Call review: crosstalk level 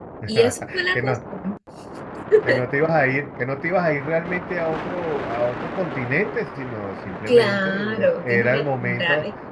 present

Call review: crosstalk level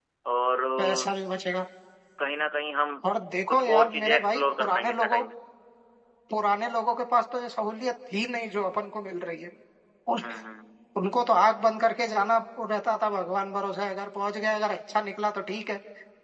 present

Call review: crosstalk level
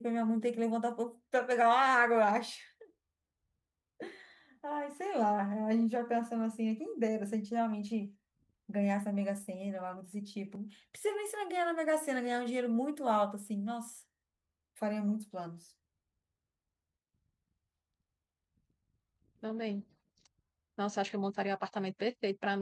none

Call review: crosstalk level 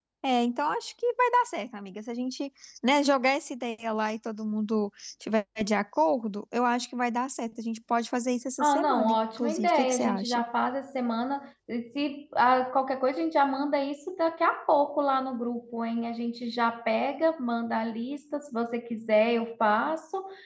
present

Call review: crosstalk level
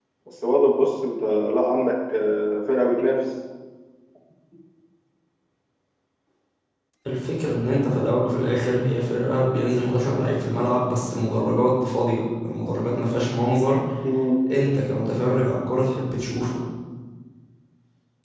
none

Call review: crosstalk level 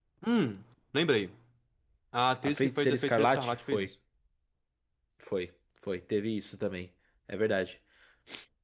present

